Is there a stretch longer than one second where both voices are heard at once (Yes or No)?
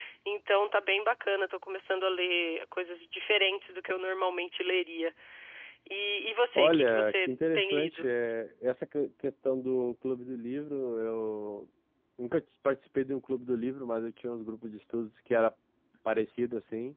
Yes